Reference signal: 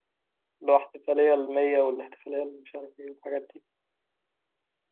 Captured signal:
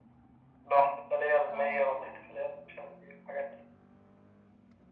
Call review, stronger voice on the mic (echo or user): echo